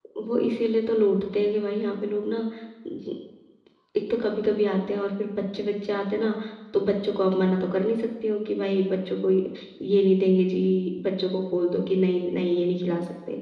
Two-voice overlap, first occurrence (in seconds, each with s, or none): none